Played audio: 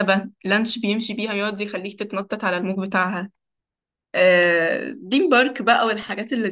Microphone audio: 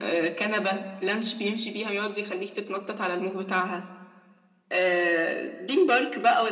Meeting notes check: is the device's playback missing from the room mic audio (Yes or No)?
No